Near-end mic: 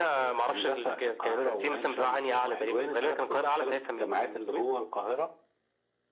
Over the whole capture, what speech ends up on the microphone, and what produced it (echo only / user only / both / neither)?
echo only